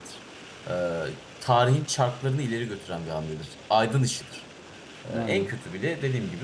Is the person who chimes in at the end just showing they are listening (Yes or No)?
Yes